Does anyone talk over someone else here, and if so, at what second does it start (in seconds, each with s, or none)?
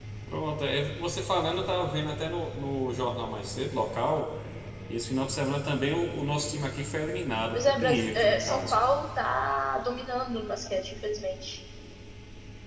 7.5 s